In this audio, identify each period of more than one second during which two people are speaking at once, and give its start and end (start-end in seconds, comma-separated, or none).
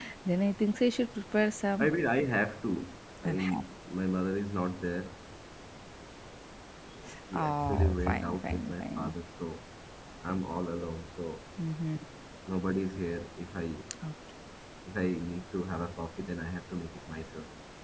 7.3-9.1